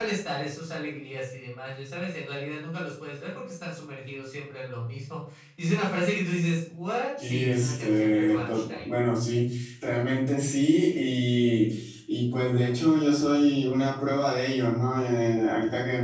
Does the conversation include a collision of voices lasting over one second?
Yes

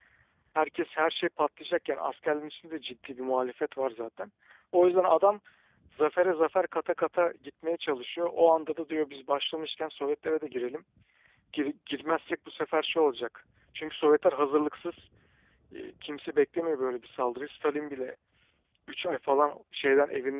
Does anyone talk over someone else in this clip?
No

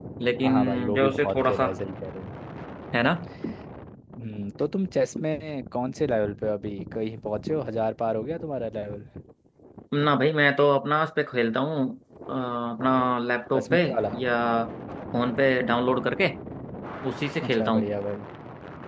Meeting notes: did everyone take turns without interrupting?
No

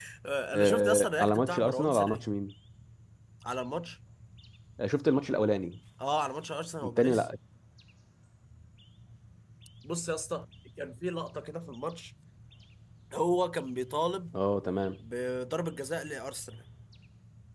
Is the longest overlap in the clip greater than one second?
Yes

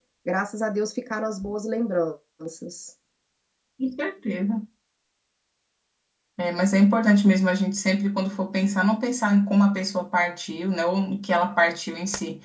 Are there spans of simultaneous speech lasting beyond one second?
No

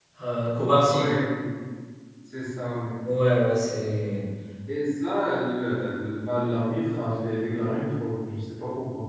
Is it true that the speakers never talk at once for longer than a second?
Yes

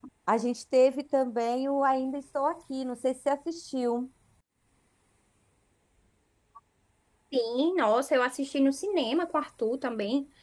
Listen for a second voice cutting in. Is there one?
No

